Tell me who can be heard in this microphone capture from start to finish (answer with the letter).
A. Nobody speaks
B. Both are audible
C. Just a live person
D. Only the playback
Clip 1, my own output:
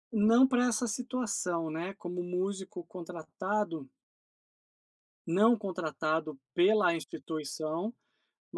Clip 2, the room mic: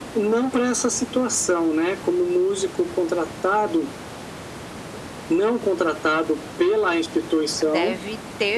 B